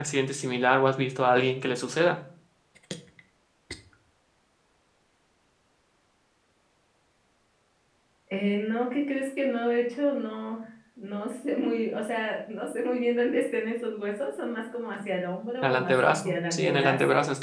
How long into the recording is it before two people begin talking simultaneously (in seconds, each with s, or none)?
15.6 s